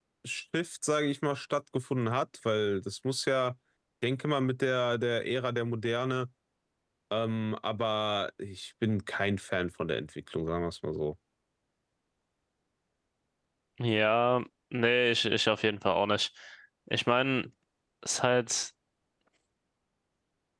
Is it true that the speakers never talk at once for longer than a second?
Yes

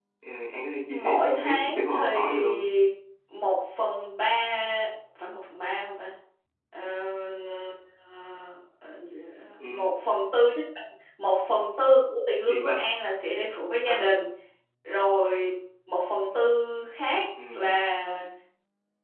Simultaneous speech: Yes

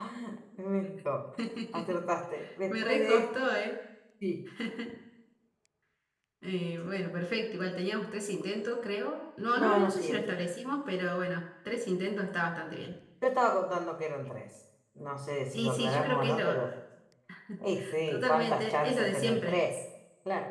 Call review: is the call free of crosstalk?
No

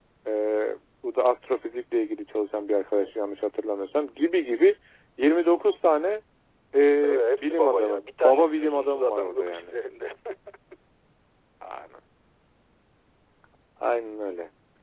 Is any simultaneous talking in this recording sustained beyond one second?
Yes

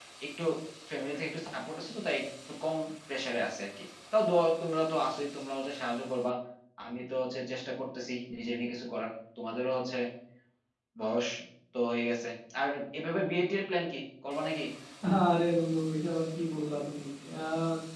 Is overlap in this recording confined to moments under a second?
Yes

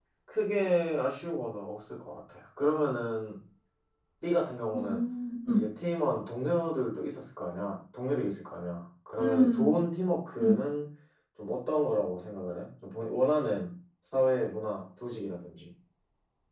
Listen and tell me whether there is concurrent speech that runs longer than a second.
No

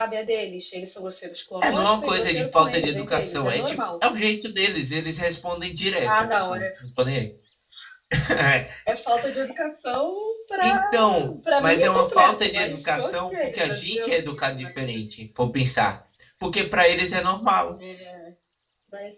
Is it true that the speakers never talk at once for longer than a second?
No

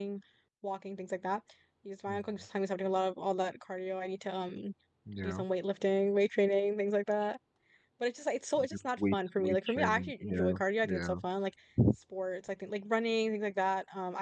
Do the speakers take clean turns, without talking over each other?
No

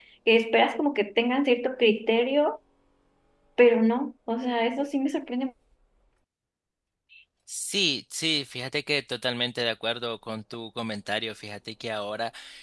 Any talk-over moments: No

